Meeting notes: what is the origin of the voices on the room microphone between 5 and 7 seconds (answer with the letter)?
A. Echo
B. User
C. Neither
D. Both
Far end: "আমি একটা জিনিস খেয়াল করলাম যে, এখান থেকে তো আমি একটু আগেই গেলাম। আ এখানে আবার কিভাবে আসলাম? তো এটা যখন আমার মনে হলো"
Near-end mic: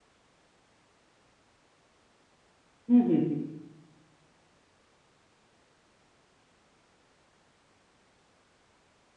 C